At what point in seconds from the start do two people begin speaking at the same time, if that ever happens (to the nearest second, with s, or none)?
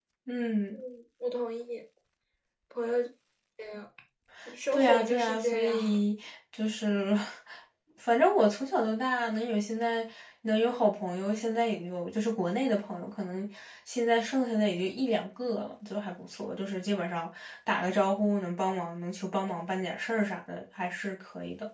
5 s